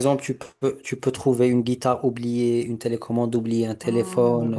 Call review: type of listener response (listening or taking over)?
taking over